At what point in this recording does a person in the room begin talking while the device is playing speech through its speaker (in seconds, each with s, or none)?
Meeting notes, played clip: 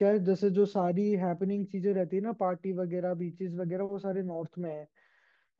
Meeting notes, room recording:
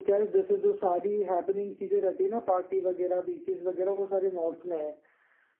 none